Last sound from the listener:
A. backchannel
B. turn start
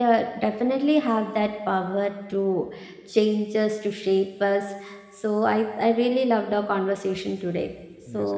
B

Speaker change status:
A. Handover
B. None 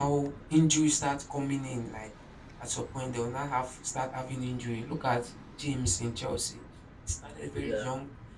B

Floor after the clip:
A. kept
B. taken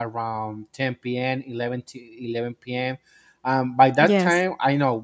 A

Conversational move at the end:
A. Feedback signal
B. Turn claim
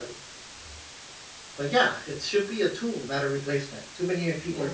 B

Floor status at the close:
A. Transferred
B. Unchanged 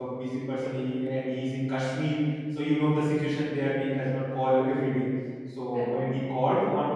B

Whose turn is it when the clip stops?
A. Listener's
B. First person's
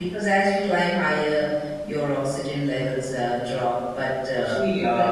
A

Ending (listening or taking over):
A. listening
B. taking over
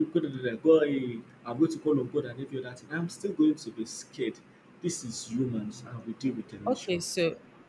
B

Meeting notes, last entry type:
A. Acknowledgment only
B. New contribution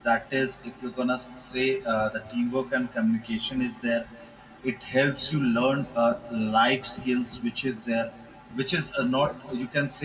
A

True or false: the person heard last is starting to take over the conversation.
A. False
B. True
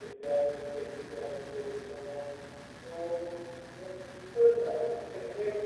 A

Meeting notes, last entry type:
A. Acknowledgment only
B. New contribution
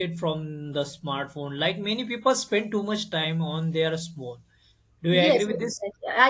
B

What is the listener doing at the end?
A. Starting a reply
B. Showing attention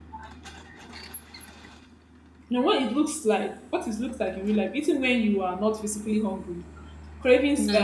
B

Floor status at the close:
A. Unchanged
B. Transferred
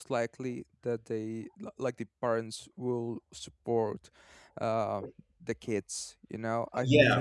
B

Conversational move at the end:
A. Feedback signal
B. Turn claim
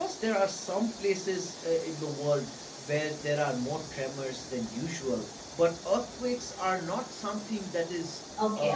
B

